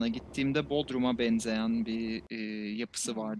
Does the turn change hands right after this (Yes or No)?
No